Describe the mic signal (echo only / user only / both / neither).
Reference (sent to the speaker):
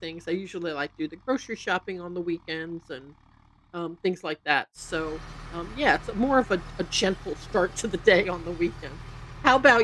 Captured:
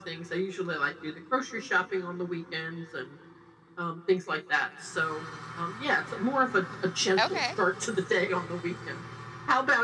both